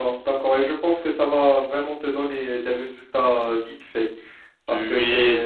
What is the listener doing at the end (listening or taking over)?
listening